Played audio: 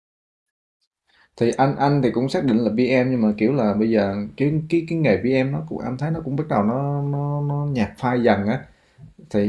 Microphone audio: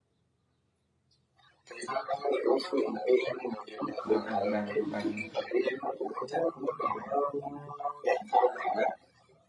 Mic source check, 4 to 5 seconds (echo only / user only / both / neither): both